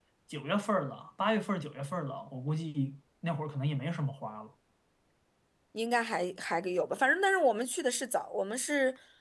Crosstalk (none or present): none